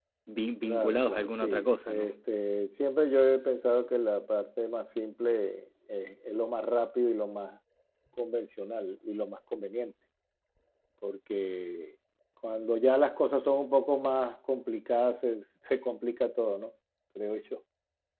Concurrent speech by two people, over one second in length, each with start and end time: 0.6-2.1

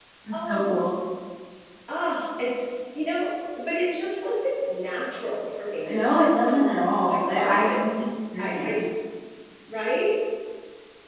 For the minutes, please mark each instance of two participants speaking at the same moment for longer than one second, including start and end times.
5.9-7.8

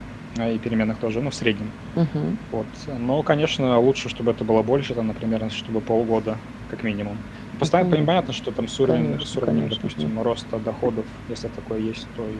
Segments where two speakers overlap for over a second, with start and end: 8.8-10.1

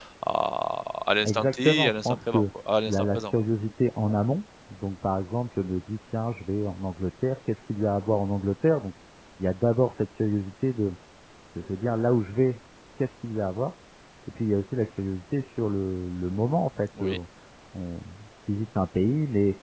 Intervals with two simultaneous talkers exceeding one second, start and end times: 1.2-2.5

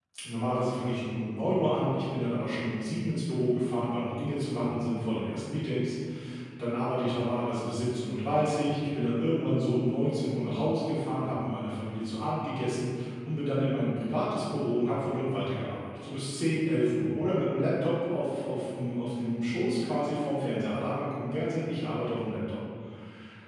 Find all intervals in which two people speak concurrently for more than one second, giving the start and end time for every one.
none

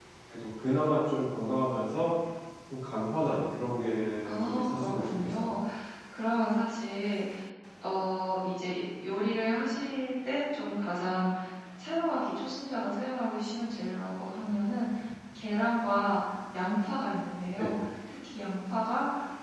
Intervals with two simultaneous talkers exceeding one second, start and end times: 4.2-5.6

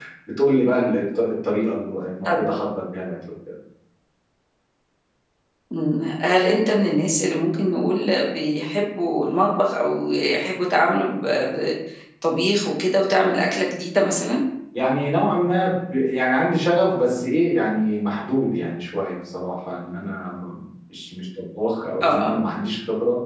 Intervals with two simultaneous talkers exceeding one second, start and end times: none

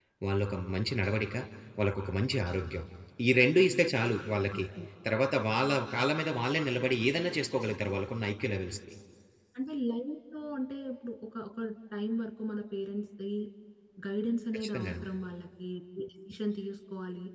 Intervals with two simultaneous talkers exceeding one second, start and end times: none

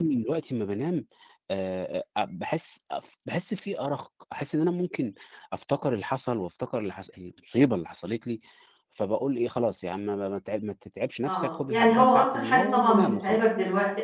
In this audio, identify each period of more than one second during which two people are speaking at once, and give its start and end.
11.2-13.4

